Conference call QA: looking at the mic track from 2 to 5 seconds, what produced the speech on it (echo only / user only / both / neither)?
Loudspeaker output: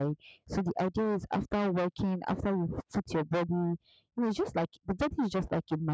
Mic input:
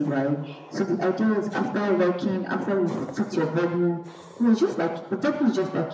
echo only